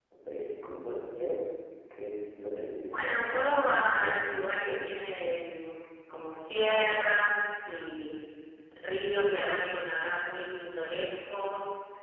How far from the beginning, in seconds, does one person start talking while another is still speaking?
2.9 s

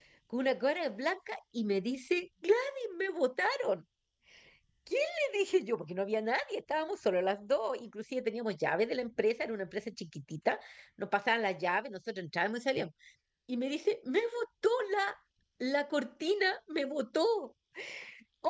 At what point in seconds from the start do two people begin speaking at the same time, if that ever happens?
none

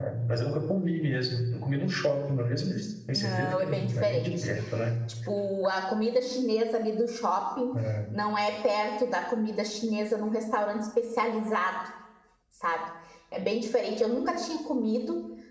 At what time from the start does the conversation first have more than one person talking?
3.1 s

